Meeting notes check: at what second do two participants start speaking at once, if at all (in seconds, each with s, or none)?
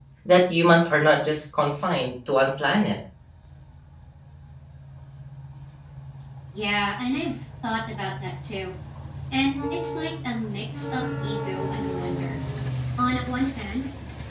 none